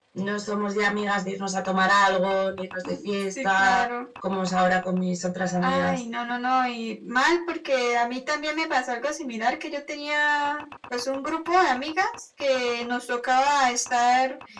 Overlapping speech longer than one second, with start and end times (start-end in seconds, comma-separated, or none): none